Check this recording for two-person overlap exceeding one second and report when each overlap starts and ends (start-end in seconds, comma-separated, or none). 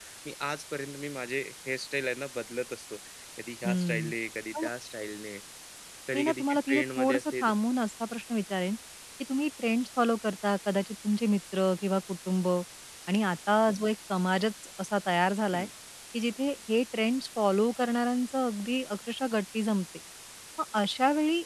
6.1-7.5